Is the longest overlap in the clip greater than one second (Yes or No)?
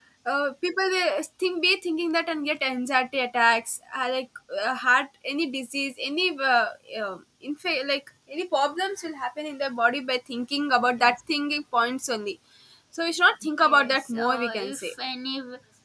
Yes